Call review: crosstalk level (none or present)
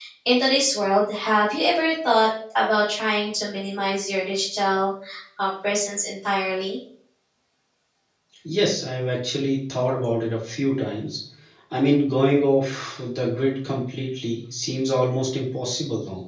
none